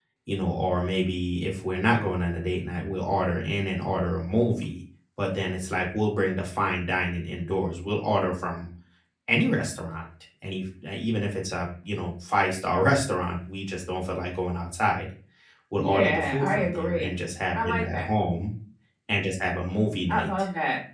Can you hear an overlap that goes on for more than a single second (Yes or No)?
Yes